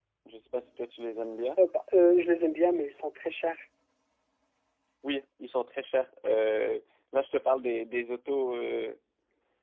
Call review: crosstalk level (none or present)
none